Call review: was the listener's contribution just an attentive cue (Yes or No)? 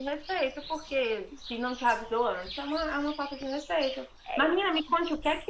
Yes